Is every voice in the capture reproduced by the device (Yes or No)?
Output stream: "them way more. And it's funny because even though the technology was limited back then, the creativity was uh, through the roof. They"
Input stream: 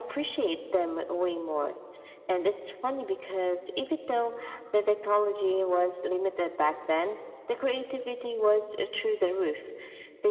Yes